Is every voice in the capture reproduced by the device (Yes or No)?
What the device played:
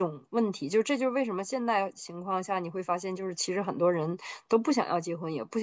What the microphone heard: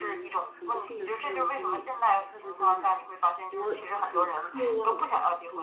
No